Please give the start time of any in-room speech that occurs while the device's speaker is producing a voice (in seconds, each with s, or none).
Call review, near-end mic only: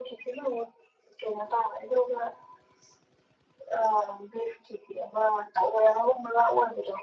none